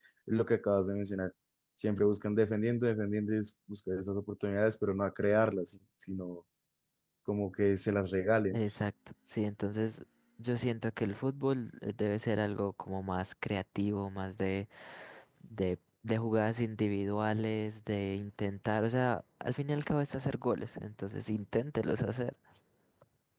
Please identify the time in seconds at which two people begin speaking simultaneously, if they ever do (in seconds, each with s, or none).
none